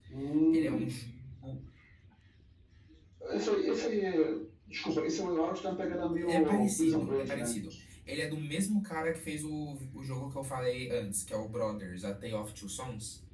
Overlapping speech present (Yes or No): Yes